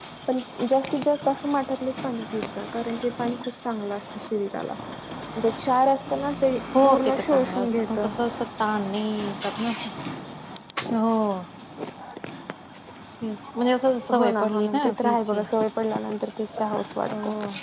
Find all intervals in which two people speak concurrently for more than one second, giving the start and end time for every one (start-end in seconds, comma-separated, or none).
6.8-8.1, 14.2-15.4